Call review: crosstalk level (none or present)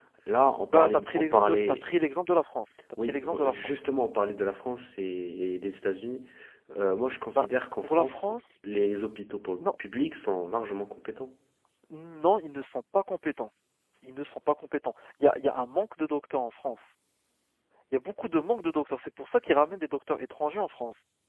present